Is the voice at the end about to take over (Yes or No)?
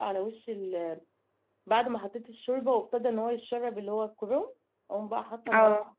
No